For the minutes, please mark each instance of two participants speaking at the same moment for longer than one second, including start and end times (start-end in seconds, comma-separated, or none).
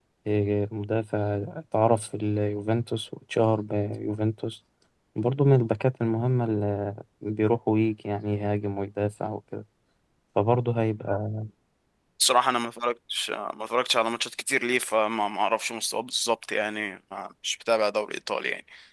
none